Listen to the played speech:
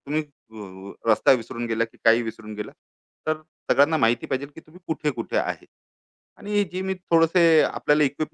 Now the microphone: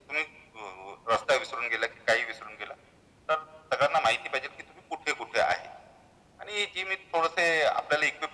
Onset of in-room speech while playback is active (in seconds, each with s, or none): none